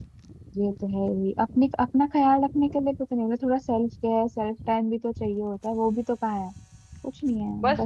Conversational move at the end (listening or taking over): taking over